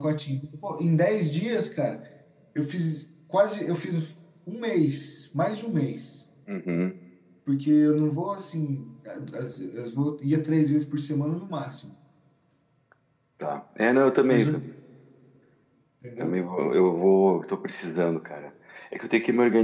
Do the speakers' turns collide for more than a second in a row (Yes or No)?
No